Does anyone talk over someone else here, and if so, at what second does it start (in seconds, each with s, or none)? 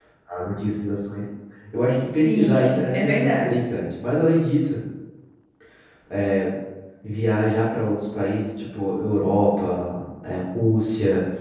2.2 s